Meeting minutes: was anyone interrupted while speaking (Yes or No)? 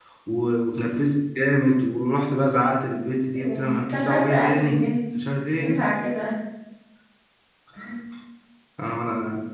Yes